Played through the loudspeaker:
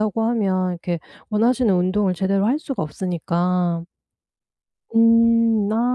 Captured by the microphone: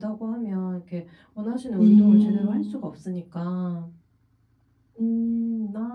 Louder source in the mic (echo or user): user